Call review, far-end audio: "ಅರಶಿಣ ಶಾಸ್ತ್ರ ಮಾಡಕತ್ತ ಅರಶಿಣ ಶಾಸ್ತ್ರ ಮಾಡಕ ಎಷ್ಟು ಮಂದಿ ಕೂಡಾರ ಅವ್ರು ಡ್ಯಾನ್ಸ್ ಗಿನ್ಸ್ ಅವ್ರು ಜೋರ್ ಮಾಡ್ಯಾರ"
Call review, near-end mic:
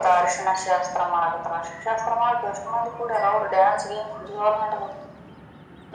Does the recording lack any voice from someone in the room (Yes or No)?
Yes